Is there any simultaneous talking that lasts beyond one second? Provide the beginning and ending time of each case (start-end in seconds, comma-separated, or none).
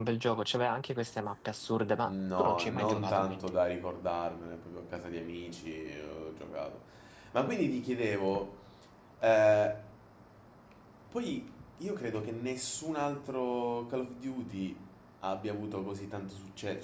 2.1-3.5